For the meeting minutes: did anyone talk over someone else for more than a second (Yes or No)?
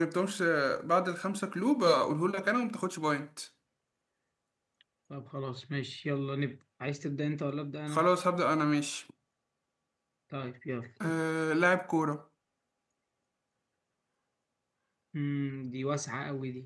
No